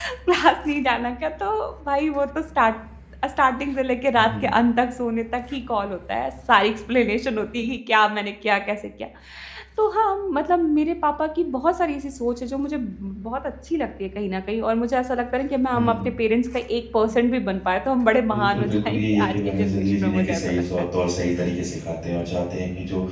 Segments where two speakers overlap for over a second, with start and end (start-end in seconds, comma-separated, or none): 18.3-20.6